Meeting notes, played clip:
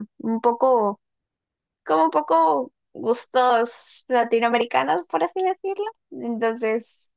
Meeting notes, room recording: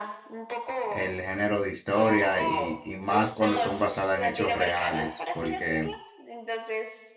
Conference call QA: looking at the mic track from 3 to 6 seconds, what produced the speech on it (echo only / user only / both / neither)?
both